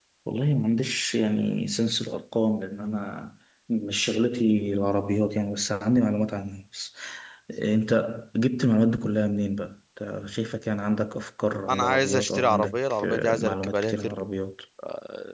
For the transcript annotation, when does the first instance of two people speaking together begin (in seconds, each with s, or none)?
11.7 s